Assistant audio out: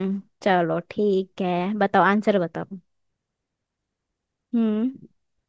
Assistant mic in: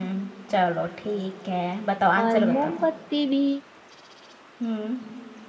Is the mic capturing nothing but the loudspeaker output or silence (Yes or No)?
No